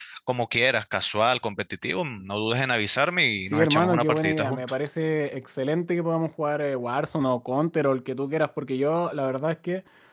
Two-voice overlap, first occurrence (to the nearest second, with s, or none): 3 s